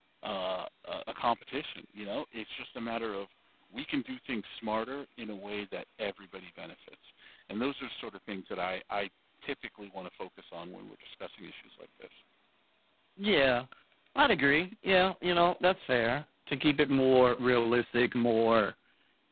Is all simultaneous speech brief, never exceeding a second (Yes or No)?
Yes